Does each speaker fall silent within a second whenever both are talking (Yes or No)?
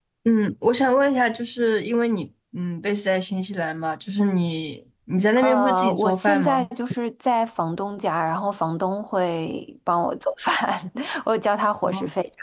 No